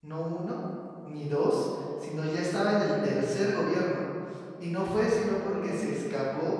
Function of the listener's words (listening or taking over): listening